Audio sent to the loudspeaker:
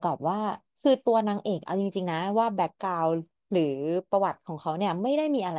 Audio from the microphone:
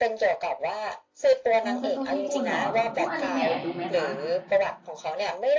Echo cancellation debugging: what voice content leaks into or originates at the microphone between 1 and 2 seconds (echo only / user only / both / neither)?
both